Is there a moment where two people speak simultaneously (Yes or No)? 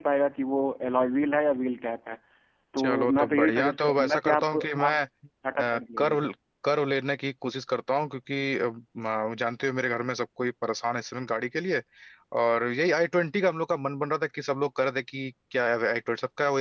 Yes